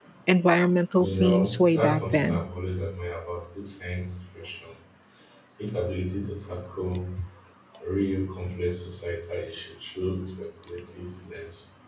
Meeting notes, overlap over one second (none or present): present